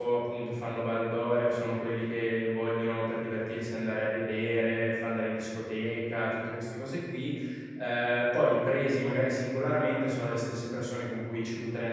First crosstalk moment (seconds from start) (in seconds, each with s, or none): none